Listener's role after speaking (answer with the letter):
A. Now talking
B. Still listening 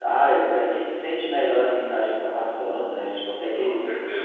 B